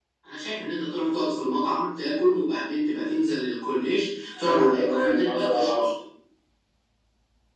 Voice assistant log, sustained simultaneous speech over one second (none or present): present